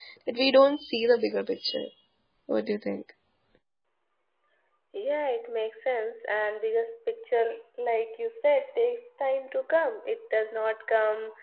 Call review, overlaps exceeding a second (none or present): none